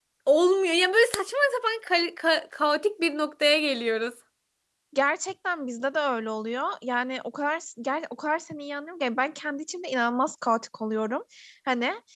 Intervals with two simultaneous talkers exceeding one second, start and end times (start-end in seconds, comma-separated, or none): none